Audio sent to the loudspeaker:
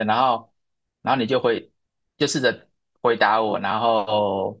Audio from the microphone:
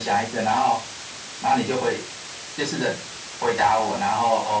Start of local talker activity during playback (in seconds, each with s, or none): none